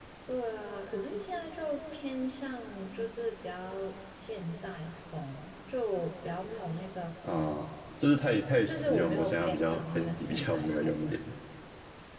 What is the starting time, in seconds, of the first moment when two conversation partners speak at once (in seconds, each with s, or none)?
8.7 s